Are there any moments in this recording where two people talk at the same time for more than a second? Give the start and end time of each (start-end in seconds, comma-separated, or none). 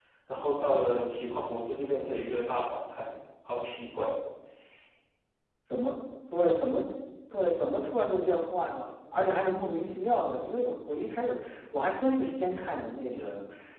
none